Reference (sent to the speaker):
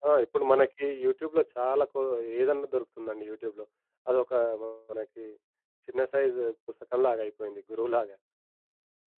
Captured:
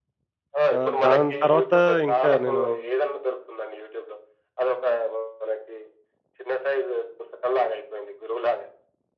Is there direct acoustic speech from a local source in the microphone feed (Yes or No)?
Yes